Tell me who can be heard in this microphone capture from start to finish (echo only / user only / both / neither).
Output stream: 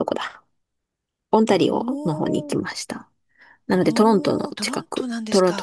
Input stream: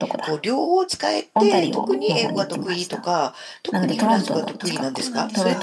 both